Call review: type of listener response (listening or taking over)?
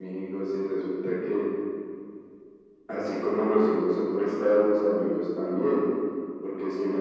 listening